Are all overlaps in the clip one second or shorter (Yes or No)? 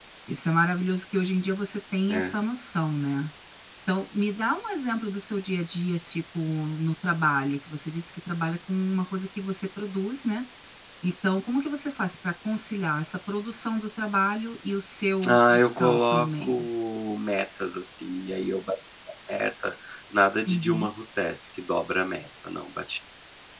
No